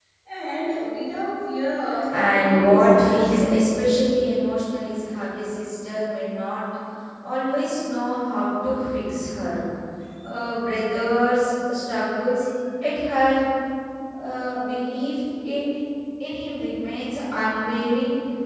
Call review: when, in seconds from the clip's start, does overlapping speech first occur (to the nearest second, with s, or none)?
2 s